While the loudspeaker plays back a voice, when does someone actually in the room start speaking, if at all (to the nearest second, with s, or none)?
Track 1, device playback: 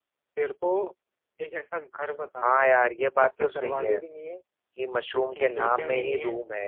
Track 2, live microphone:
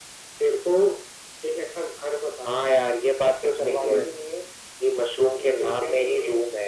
4 s